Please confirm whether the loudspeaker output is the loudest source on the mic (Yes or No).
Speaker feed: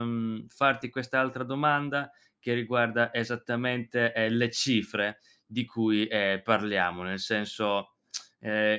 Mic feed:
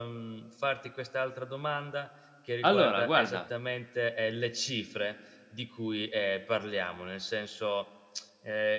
No